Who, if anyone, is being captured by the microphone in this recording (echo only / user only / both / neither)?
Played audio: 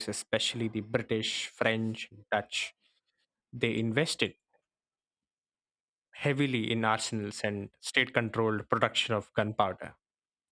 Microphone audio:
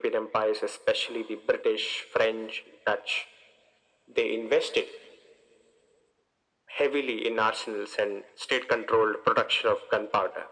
echo only